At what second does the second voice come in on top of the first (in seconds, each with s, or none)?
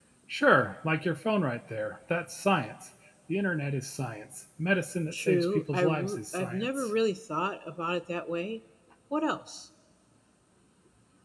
5.1 s